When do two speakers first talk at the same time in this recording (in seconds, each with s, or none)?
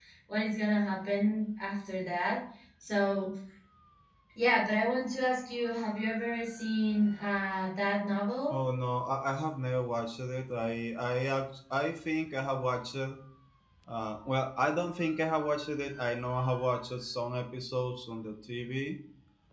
none